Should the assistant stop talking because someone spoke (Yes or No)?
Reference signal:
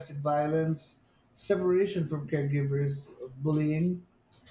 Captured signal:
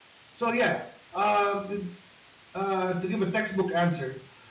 Yes